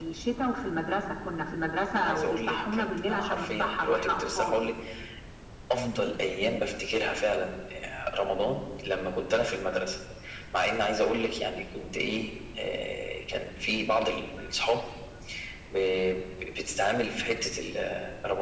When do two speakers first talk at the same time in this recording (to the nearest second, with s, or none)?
2 s